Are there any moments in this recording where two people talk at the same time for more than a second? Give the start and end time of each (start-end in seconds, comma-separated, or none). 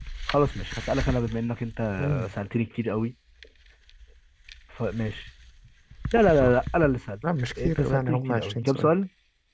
7.5-8.9